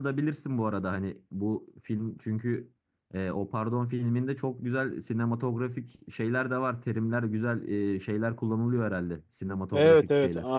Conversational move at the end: taking over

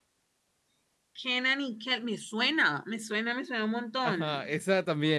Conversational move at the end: taking over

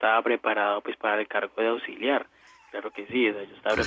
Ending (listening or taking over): taking over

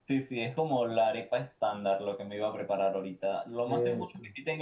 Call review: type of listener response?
listening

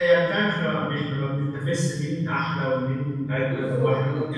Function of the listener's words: listening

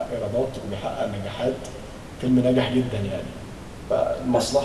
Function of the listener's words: listening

